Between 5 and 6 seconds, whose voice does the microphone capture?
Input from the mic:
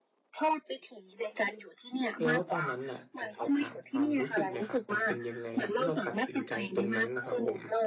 both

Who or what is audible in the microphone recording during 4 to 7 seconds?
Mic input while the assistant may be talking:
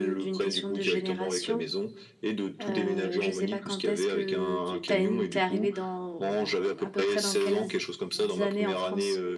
both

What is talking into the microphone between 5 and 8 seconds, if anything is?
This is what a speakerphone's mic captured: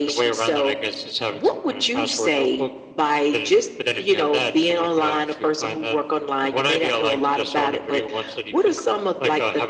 echo only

